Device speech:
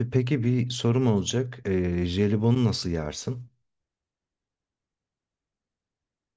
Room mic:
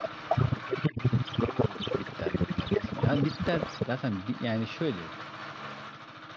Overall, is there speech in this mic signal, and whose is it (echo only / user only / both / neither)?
both